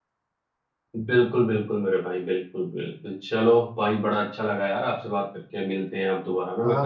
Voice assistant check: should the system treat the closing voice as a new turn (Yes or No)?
Yes